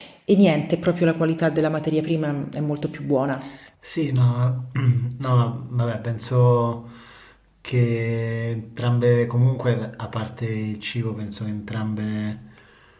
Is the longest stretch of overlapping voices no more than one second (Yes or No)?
Yes